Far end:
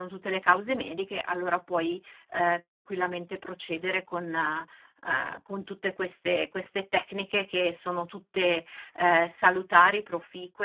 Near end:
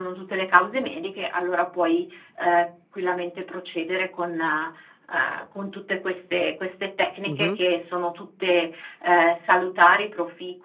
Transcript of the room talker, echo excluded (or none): Mh-mh.